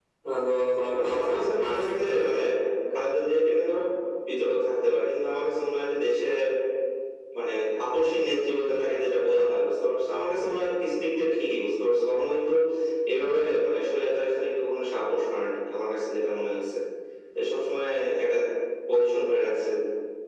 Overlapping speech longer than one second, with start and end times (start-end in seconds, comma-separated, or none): 0.9-2.3